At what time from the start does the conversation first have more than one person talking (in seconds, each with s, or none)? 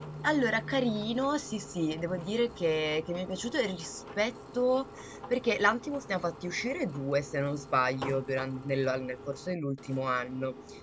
none